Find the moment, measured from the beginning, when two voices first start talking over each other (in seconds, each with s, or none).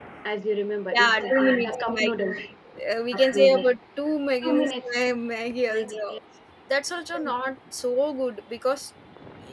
1.0 s